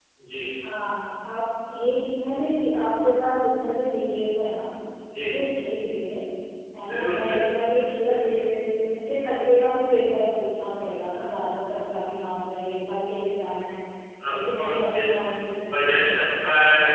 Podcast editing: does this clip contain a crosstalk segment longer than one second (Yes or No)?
Yes